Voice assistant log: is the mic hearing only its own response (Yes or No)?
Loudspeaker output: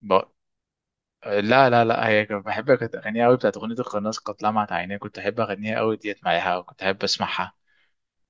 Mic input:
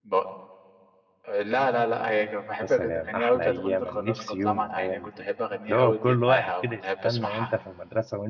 No